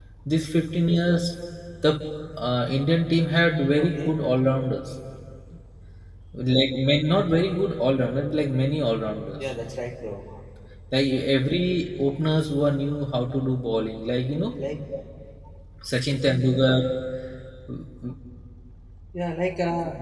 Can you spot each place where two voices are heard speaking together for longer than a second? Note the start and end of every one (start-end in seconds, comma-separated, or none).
none